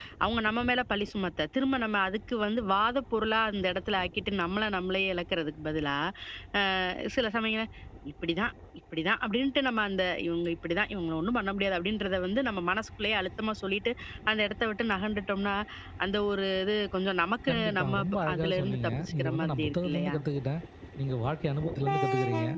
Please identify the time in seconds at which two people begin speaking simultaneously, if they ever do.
17.5 s

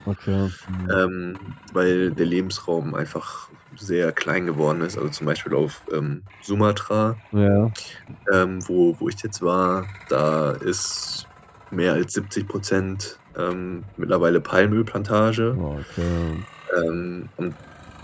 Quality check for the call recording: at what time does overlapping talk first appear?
none

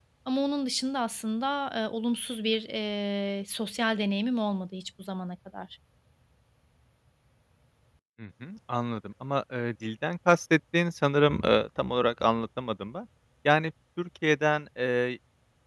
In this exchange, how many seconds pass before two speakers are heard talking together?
none

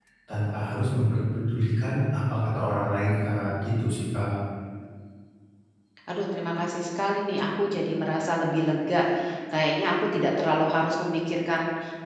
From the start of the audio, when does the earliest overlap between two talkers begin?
none

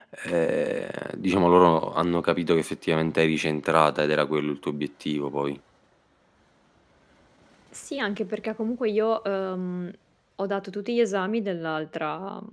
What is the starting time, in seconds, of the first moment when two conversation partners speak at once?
none

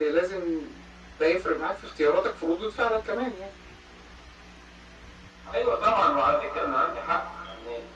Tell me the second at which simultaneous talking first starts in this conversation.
none

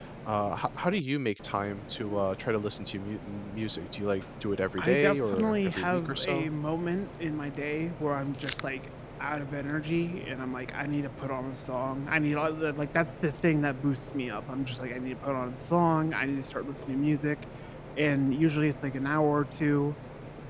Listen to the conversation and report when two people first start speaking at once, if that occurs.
4.8 s

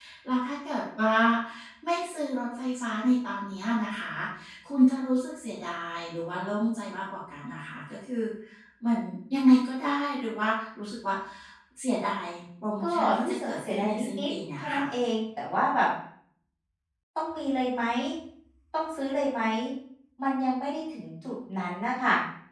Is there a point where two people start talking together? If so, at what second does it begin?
12.8 s

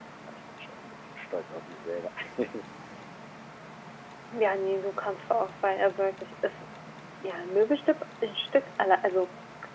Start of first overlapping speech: none

